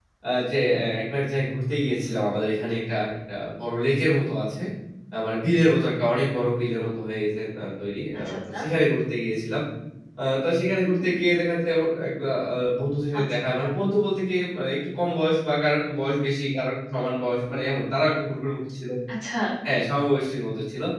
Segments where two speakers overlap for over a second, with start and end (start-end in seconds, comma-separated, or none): none